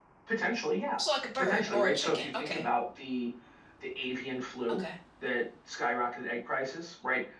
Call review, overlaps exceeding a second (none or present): present